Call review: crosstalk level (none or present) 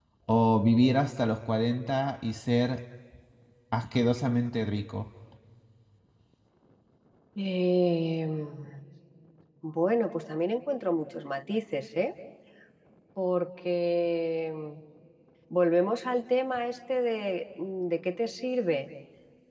none